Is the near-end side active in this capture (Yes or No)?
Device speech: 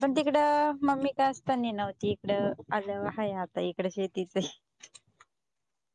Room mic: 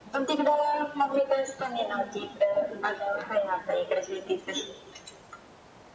No